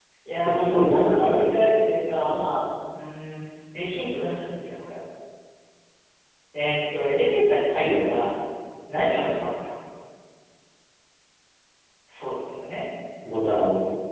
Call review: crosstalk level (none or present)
present